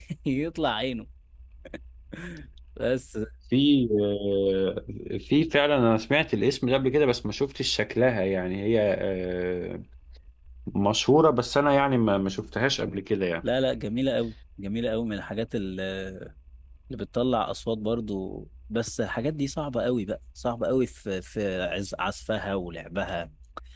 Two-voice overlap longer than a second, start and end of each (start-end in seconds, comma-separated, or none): none